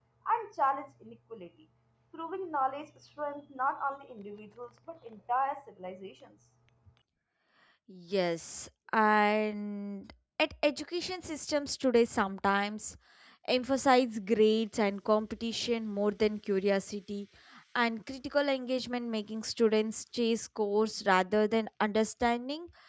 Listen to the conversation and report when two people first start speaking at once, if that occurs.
none

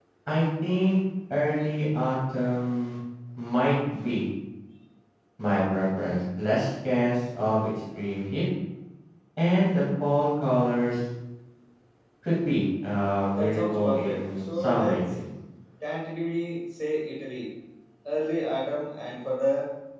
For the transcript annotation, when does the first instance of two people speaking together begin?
13.3 s

